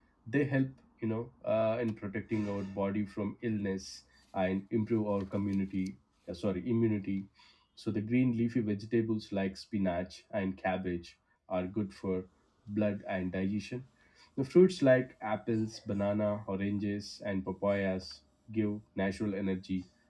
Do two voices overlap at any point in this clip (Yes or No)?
No